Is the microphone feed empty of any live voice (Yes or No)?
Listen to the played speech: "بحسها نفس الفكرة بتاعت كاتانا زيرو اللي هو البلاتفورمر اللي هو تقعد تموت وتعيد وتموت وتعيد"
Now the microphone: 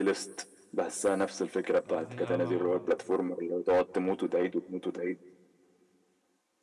No